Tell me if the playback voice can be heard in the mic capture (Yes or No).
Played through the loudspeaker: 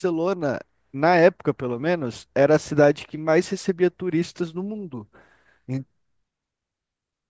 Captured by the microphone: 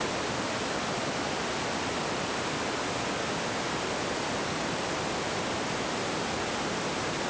No